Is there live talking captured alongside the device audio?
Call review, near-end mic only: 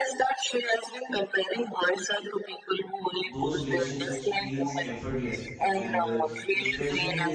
Yes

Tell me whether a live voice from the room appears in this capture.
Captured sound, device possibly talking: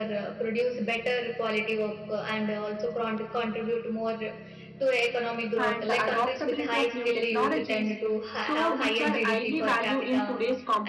Yes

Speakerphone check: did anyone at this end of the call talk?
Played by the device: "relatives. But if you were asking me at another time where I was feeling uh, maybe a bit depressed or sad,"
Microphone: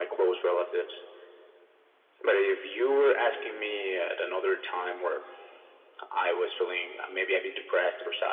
No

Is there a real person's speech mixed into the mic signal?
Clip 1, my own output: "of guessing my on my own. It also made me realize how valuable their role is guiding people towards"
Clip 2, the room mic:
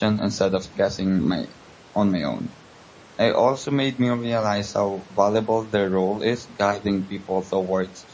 No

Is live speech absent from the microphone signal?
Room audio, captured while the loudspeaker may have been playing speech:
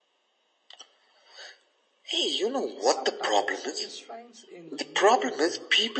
No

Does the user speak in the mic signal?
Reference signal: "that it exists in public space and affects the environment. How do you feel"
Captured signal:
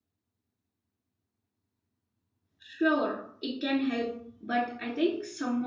Yes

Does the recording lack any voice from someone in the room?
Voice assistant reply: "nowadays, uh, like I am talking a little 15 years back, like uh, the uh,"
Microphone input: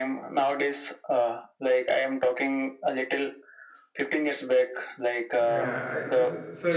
No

